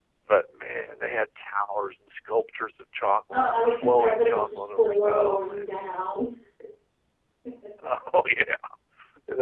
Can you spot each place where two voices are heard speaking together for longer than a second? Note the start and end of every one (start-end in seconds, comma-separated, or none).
3.3-5.6